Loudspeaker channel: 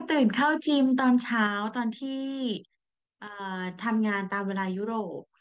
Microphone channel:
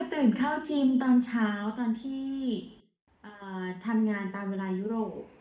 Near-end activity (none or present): none